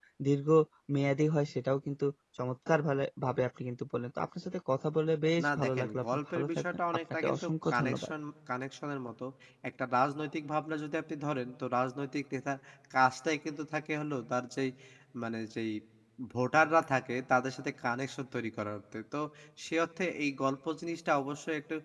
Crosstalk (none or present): present